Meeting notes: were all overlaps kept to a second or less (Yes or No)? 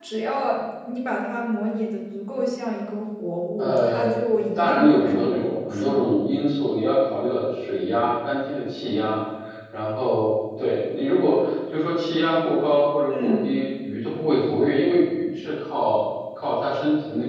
No